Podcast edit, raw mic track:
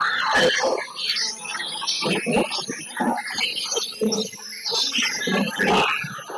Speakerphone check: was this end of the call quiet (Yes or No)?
Yes